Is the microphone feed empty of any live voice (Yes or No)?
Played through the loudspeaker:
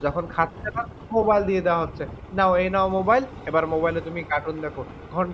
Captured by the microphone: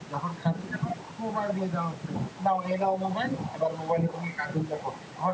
Yes